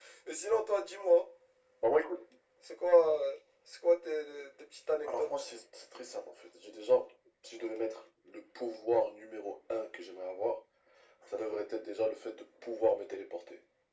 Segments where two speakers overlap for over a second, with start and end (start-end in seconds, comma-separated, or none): none